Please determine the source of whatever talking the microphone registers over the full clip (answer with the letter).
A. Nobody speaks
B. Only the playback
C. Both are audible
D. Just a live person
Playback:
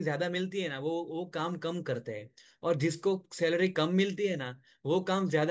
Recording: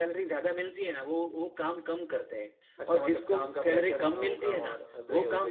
C